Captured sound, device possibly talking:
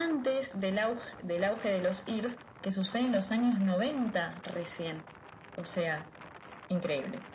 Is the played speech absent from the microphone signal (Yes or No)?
No